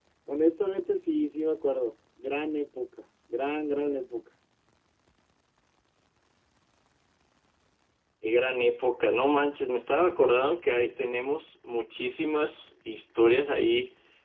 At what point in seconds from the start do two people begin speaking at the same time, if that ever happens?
none

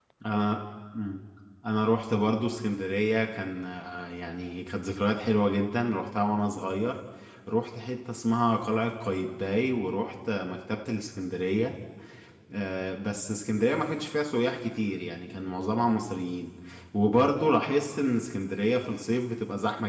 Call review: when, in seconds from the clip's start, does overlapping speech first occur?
none

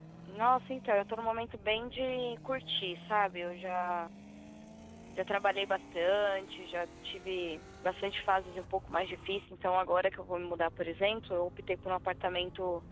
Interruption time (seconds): none

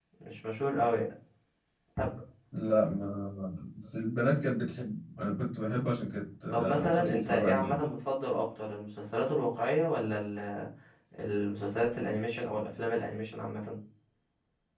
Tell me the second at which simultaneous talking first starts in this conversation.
6.5 s

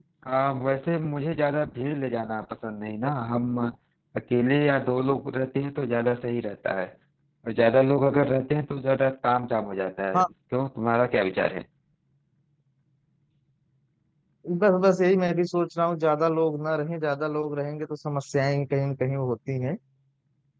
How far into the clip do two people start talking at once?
none

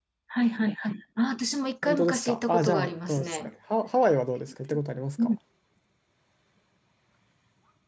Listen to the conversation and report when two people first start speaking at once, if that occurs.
1.8 s

